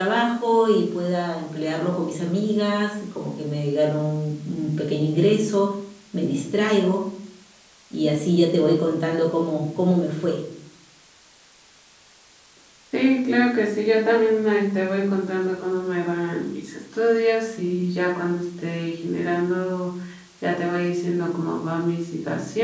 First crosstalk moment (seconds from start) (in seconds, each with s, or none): none